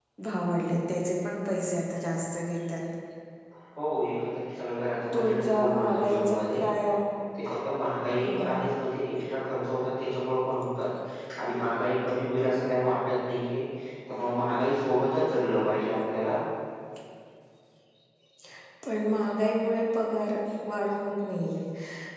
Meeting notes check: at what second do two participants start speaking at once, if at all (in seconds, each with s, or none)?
5.1 s